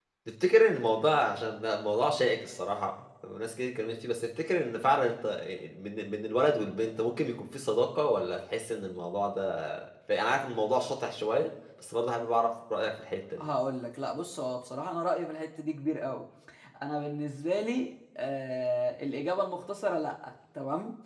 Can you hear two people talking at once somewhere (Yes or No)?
No